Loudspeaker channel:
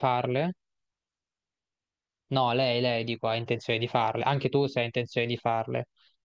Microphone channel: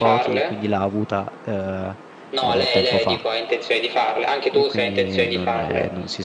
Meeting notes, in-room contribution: present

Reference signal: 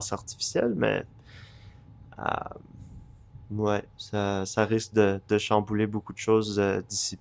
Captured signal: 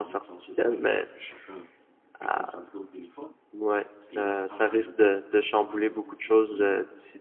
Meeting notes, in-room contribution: present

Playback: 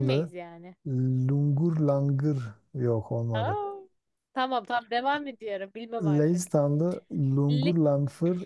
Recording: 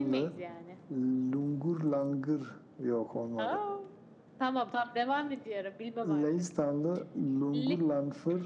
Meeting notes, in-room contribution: none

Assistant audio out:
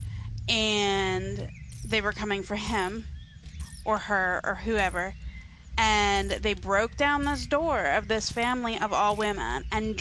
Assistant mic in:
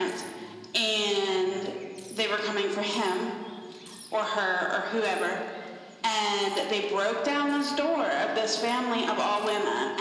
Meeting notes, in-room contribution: none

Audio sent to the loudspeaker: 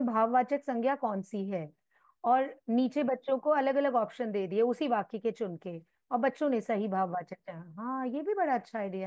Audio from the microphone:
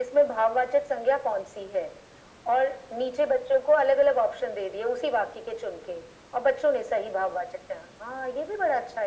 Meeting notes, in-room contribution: none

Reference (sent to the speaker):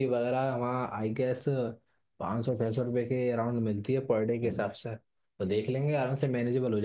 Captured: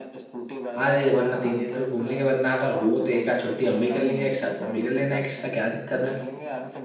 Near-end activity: present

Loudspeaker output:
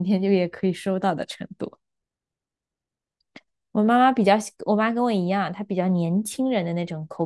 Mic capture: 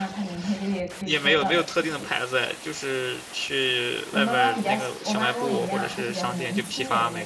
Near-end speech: present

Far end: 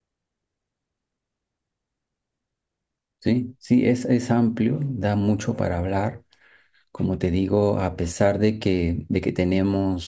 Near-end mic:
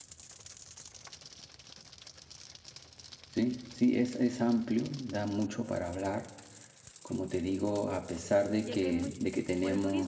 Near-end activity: present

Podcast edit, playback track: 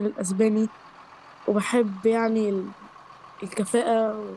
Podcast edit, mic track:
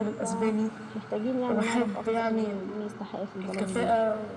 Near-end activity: present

